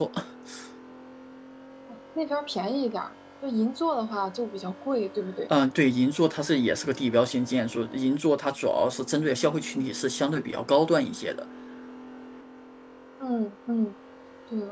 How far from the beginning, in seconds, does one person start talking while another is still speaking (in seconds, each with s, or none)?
none